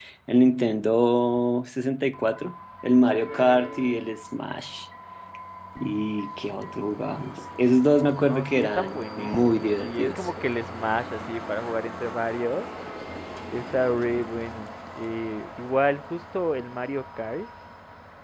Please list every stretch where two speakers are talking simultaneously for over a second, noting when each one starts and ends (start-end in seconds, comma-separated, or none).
8.2-10.3